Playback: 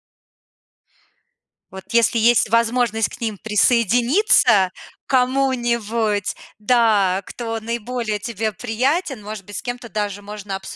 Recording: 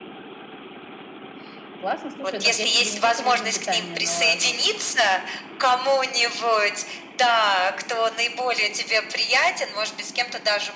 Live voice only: Классно. Слушай, дак я себе не только режим питания налажу.

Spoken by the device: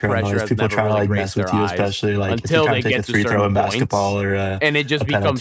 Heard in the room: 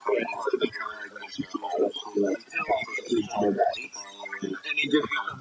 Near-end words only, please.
none

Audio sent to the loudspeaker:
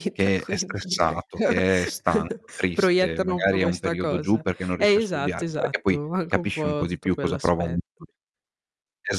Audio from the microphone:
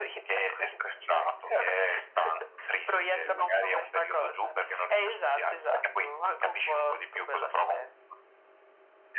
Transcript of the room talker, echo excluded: Mh-mh.

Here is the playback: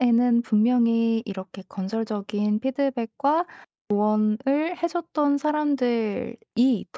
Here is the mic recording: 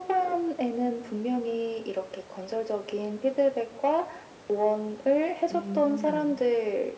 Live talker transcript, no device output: 음.

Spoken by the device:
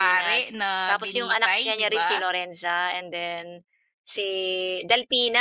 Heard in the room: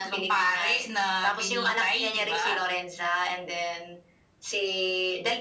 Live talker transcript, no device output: none

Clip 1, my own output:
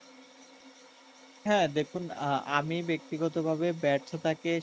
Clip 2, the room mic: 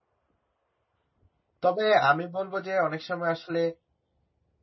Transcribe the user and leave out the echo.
তবে আমি বলব যে, "অনেক সময় আসলে

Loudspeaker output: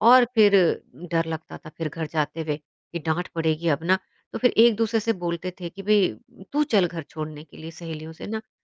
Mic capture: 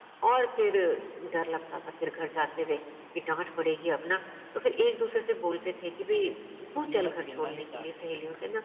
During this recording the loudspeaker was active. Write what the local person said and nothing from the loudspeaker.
वो दिन भर खेलना ही चाहते हैं।

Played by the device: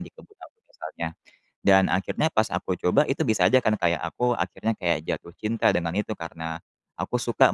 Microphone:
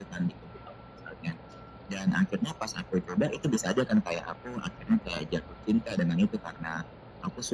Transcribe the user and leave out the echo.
none

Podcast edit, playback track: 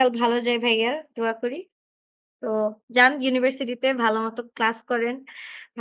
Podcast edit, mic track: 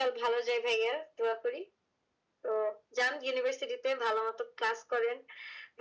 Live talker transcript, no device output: none

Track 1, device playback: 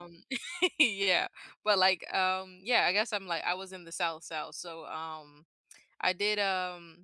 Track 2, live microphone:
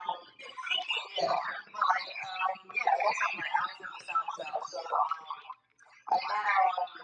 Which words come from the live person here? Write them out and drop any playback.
none

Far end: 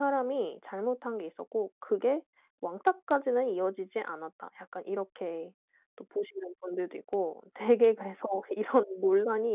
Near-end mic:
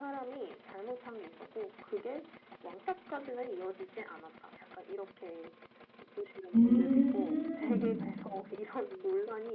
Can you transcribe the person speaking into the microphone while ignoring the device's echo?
음.

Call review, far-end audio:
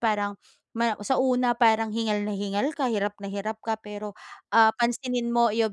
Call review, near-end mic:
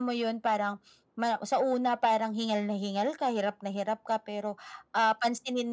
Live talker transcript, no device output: none

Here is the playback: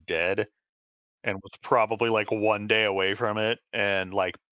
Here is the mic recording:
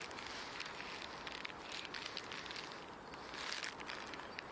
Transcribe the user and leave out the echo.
none

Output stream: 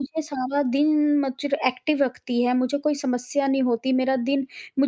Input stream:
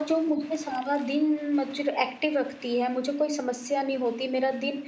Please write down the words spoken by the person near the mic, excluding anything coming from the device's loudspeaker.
none

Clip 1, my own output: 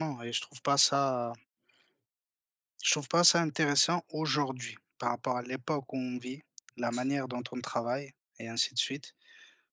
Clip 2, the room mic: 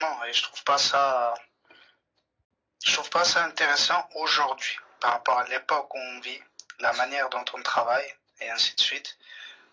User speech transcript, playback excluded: none

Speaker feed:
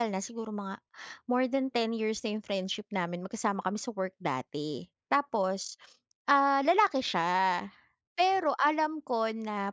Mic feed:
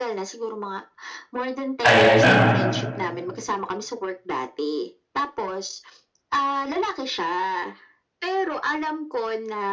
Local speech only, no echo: Ayan, oo.

